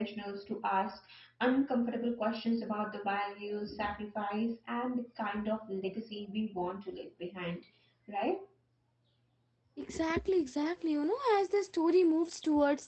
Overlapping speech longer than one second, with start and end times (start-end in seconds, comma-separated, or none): none